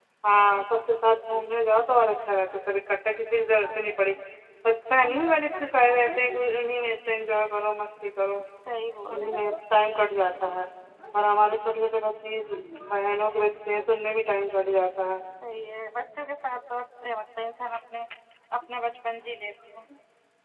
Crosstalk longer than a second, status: none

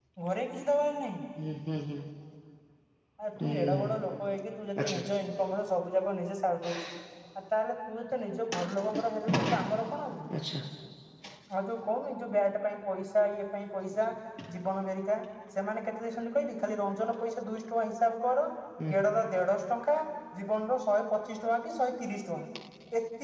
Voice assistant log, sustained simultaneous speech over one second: none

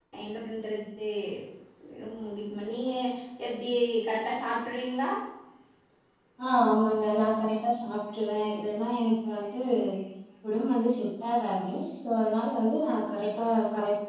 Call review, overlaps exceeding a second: none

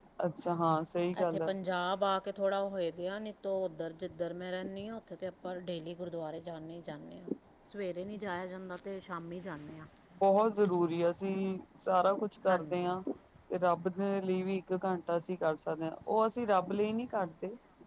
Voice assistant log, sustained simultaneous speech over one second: none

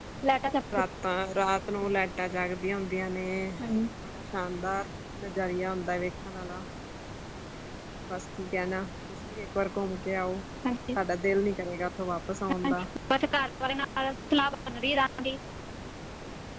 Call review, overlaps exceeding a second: none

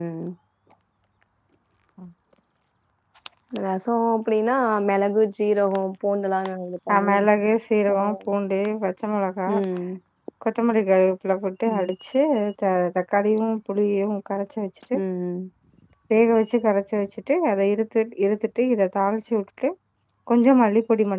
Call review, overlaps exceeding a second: none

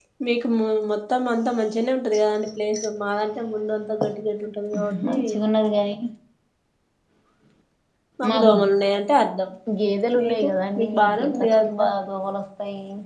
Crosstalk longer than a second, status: present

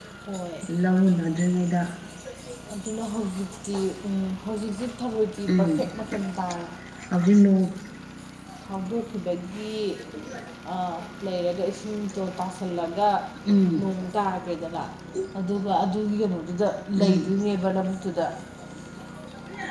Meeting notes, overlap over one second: none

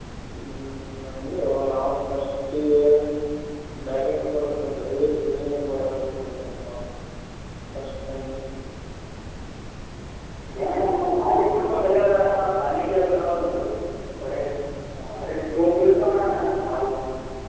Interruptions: present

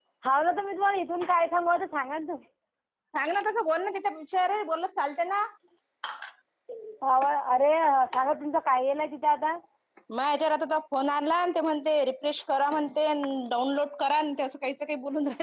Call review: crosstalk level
none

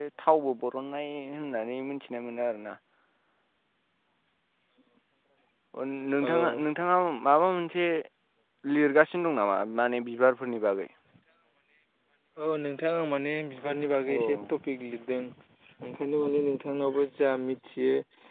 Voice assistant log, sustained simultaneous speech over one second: none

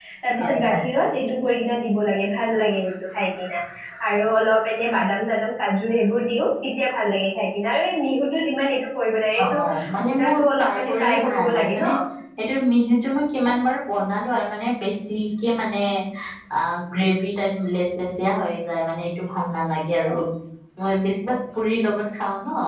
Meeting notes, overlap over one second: present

